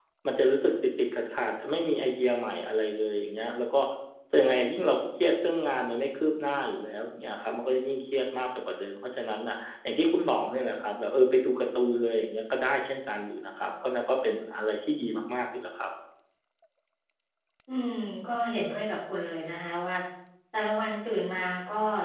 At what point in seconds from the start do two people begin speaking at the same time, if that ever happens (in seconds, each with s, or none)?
none